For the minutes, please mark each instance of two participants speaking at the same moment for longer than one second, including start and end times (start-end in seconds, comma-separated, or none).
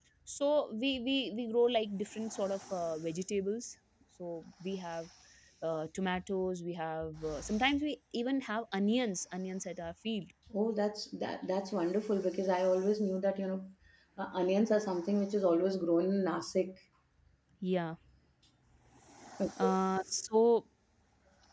none